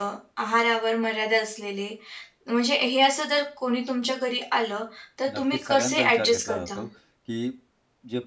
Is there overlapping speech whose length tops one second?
Yes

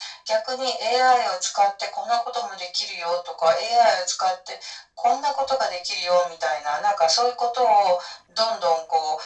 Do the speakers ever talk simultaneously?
No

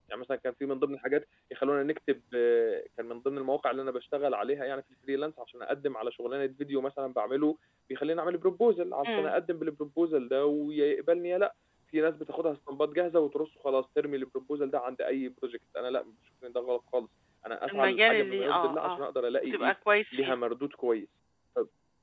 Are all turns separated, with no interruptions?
No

